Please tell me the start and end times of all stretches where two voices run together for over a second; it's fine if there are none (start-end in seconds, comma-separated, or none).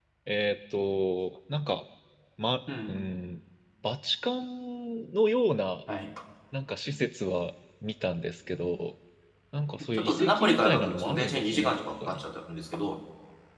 9.9-12.2